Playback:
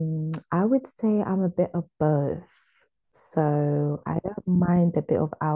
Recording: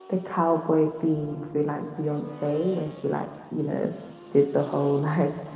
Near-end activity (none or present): present